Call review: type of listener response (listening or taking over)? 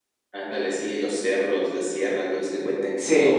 listening